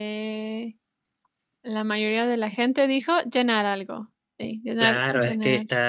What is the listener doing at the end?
taking over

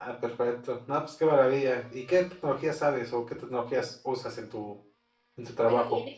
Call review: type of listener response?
taking over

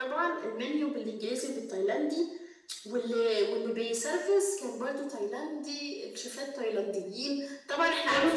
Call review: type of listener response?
listening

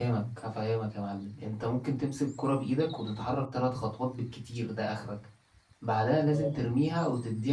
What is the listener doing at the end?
listening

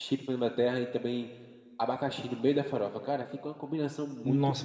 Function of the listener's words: taking over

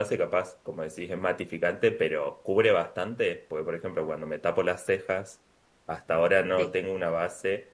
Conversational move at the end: listening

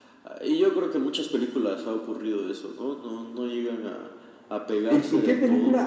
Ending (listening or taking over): taking over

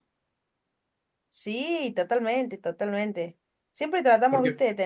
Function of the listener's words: listening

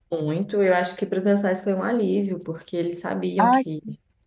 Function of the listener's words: listening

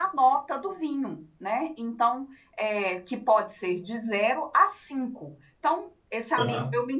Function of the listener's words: listening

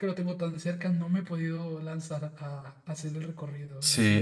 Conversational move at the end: taking over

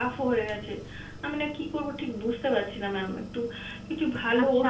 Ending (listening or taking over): taking over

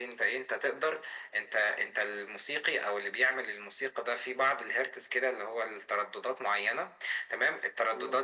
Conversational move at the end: listening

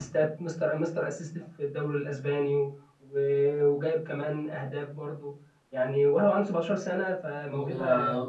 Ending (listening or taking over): taking over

